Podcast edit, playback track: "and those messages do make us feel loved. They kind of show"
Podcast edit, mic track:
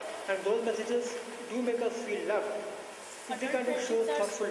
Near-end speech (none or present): present